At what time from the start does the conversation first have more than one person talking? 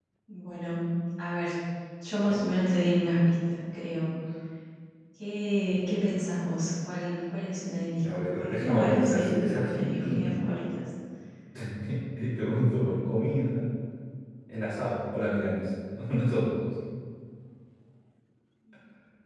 8 s

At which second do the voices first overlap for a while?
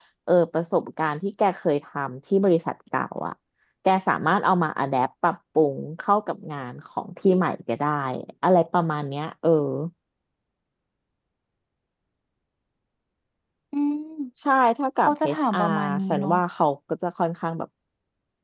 15 s

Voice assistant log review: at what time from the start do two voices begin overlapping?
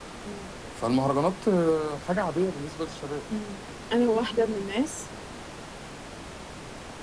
none

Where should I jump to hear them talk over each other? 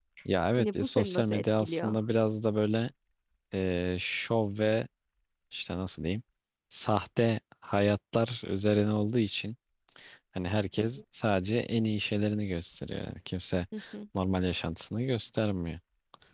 1 s

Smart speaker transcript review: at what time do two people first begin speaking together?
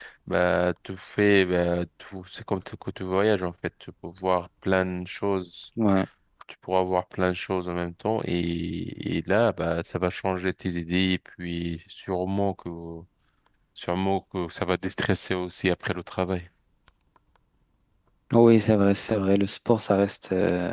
none

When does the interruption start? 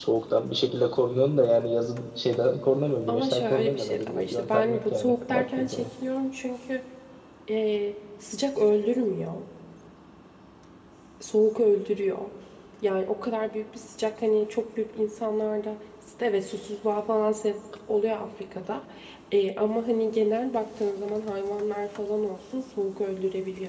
3 s

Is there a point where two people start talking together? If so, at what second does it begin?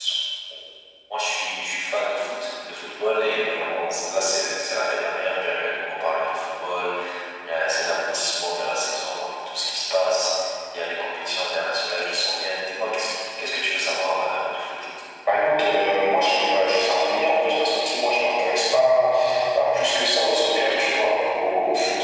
none

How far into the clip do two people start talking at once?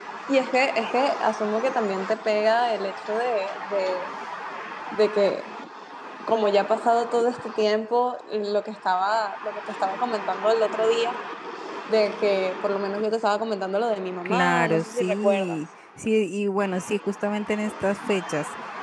14 s

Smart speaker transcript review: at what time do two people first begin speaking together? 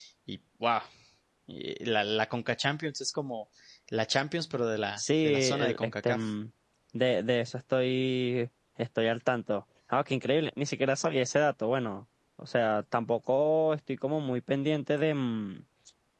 5 s

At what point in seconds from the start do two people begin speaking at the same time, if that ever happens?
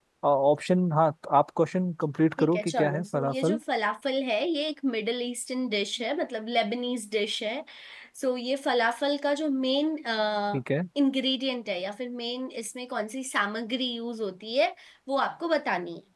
2 s

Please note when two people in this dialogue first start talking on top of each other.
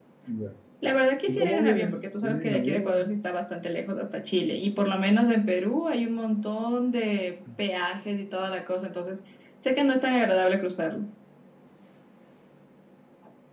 1 s

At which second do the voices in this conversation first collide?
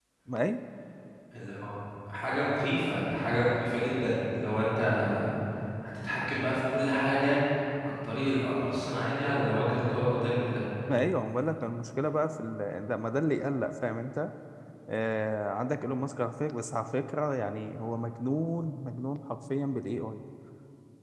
none

